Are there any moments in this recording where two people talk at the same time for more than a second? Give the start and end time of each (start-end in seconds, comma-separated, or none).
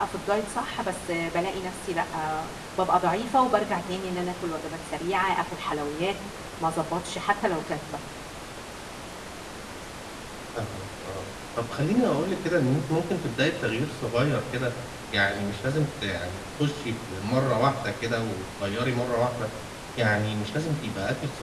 none